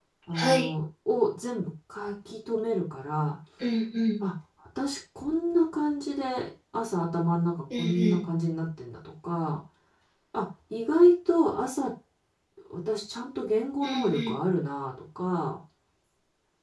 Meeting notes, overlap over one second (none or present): none